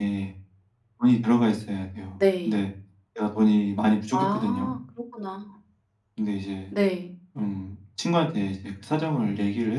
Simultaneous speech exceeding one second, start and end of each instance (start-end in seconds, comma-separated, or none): none